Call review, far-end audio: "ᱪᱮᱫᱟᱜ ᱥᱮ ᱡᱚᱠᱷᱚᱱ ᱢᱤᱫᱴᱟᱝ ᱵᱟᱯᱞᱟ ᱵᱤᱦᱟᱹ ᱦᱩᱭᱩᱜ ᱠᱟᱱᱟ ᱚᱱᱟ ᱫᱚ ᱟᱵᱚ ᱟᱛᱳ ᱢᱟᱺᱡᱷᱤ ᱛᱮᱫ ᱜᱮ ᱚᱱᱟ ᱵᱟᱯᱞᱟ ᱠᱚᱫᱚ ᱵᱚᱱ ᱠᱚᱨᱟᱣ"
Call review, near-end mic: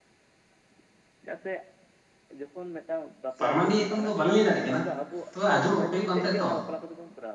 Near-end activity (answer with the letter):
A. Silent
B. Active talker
B